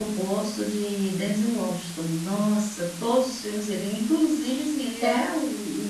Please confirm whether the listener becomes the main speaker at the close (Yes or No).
No